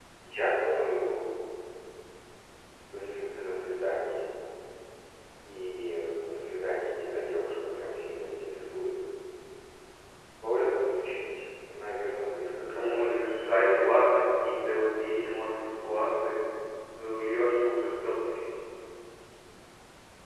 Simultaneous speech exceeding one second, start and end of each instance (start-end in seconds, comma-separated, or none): 12.6-14.0